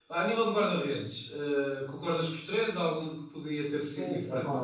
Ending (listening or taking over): taking over